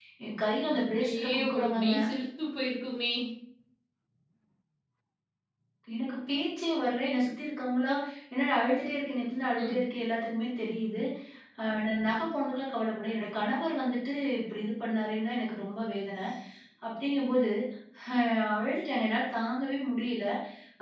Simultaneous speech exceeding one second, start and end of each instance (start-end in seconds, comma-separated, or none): 0.7-2.0